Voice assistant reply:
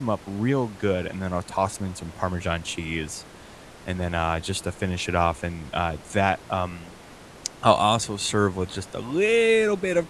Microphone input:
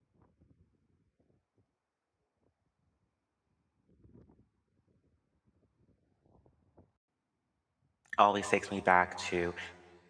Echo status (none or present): none